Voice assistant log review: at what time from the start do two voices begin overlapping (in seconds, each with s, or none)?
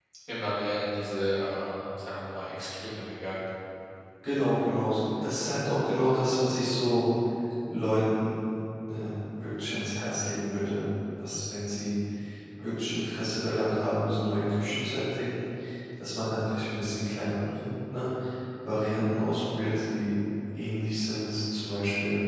none